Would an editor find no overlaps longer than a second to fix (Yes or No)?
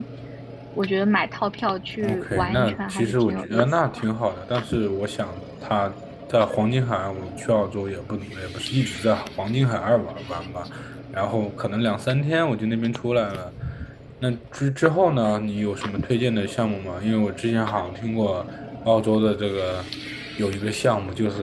No